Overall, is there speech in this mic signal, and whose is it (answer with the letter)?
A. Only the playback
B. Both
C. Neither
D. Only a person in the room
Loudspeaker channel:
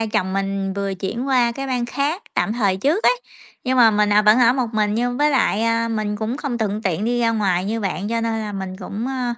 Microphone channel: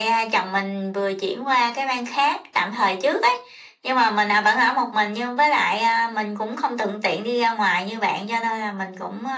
A